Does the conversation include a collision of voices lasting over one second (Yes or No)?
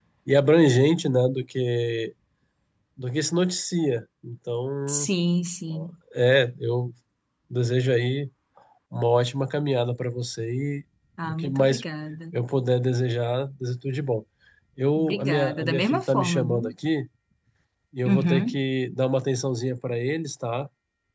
Yes